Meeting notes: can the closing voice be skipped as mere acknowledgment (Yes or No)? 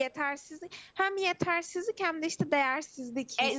No